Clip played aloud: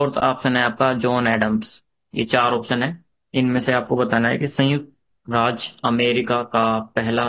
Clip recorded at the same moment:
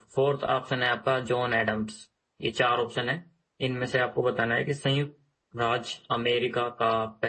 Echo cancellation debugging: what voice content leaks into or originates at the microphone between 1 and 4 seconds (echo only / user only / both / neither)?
echo only